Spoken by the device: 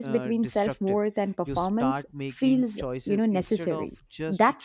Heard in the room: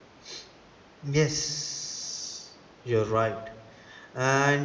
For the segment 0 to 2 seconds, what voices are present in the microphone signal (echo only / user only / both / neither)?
user only